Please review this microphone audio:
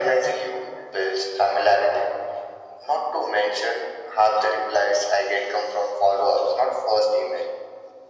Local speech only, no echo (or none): none